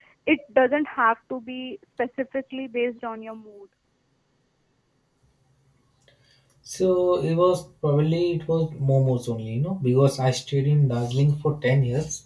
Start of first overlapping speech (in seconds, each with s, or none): none